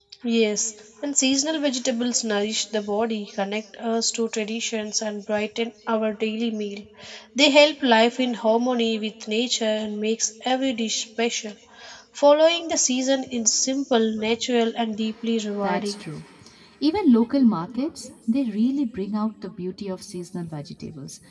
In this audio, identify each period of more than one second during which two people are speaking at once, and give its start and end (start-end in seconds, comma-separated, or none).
none